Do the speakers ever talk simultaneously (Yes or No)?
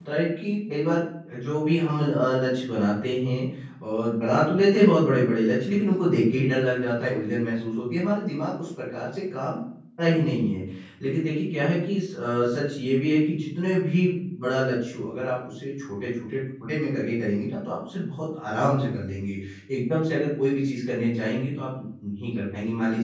No